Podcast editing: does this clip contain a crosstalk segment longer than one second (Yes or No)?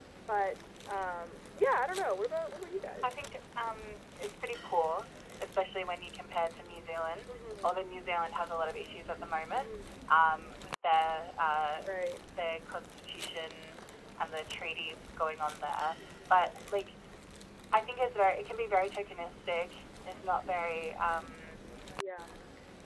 No